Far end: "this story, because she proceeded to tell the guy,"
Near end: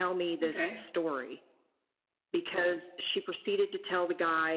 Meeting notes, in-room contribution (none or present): present